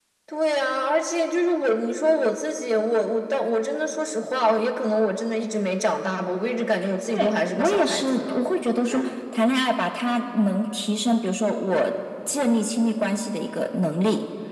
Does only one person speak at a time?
No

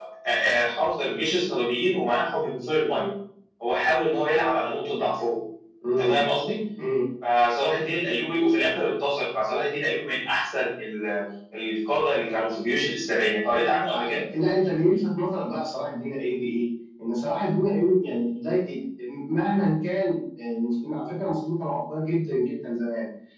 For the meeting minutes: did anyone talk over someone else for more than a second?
No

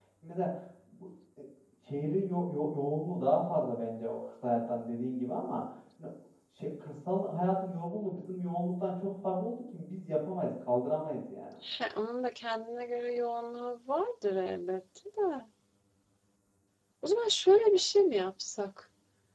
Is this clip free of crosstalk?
Yes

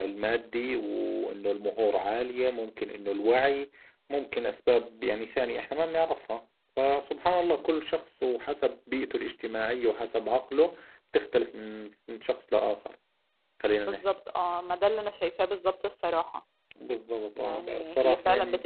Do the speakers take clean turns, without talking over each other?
No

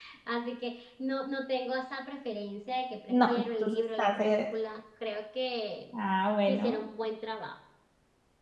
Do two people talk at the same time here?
Yes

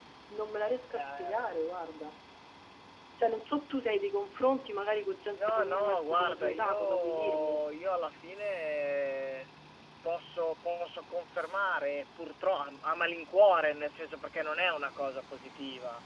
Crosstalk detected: Yes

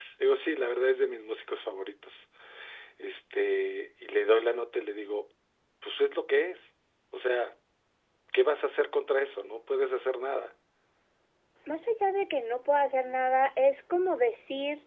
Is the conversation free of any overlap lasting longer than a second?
Yes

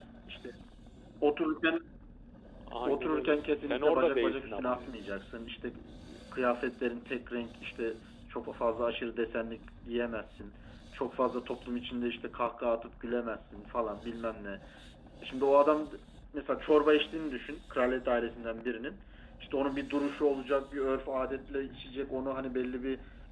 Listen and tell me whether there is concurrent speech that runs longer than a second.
Yes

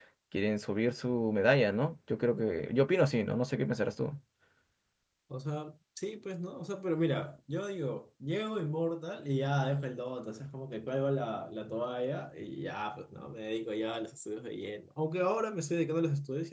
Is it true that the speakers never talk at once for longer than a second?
Yes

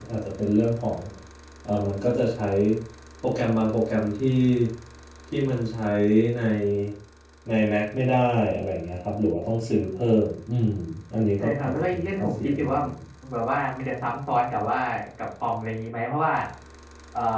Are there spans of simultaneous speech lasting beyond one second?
Yes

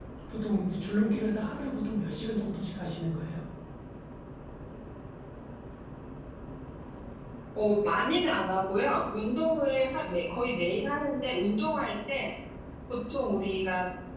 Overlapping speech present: No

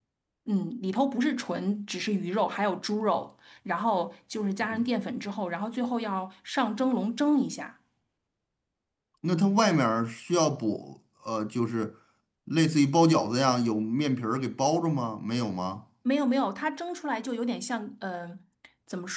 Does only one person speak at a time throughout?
Yes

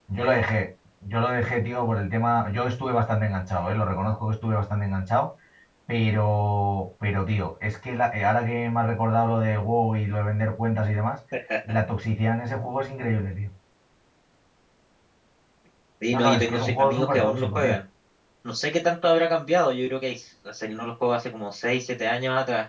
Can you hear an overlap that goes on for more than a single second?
Yes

